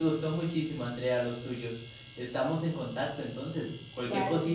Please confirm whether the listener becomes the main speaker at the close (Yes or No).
No